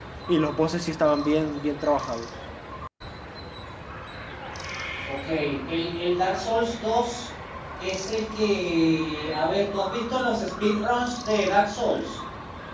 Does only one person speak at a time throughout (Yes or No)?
Yes